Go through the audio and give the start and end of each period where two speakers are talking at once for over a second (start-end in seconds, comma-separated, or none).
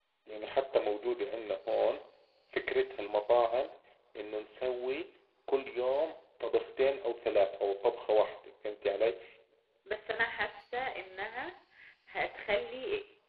none